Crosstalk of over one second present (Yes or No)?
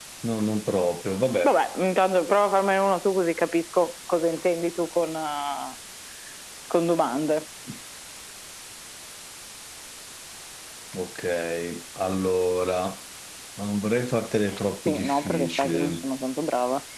Yes